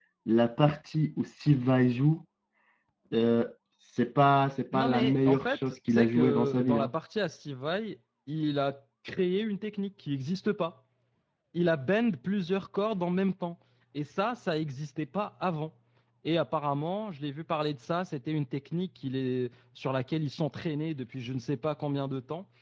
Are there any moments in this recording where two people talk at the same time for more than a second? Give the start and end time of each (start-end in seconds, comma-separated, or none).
4.7-6.9